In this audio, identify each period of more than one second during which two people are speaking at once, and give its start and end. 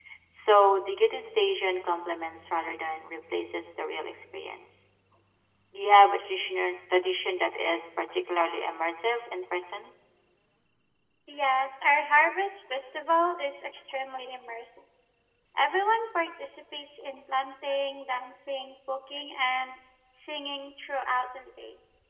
none

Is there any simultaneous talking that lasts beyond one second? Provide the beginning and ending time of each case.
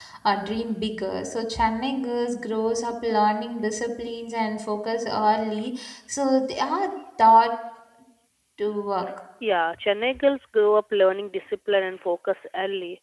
none

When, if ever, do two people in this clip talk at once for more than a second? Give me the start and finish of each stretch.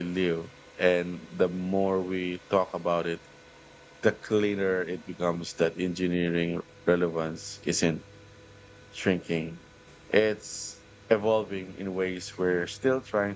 none

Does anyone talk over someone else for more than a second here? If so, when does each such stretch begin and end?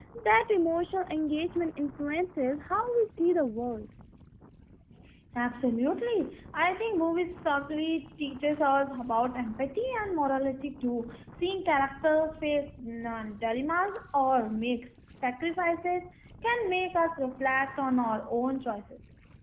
none

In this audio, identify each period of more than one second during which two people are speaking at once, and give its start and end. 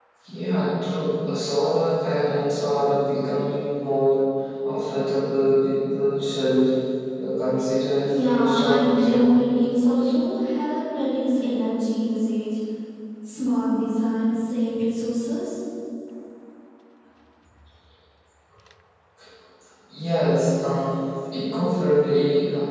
8.1-9.3

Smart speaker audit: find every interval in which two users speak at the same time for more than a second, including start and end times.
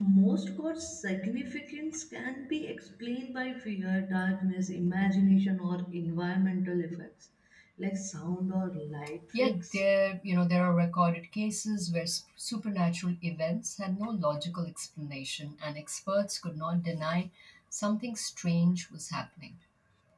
none

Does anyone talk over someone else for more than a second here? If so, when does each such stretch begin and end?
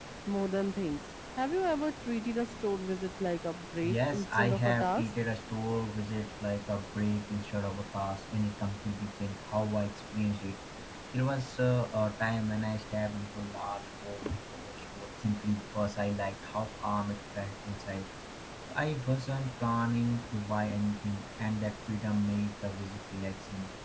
3.8-5.0

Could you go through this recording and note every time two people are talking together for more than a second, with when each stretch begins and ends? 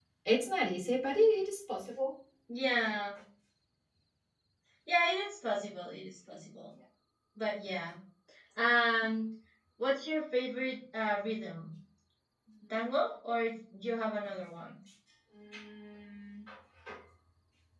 none

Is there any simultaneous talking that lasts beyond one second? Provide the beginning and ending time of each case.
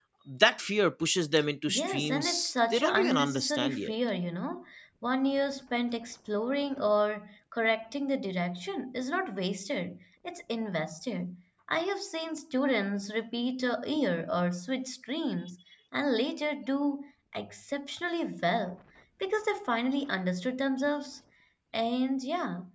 1.7-3.9

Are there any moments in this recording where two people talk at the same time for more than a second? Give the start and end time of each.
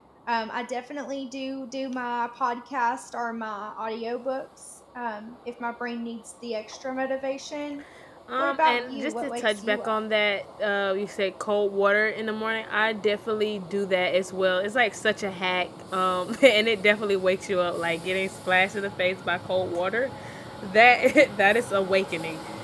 8.4-10.0

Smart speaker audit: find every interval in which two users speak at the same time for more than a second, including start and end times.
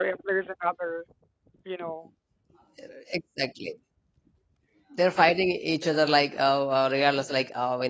none

